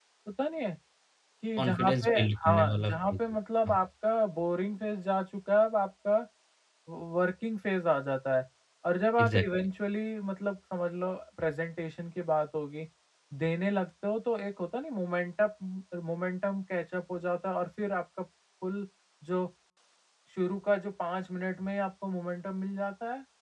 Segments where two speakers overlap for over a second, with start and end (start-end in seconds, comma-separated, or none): 1.6-3.2